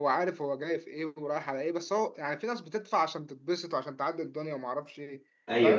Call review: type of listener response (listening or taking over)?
taking over